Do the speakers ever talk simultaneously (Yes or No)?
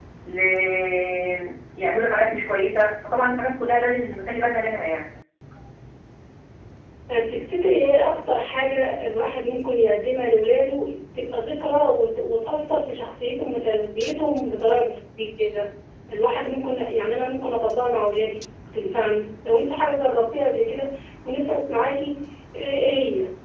No